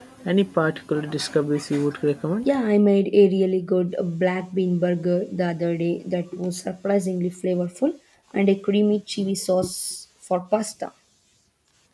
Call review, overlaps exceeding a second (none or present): none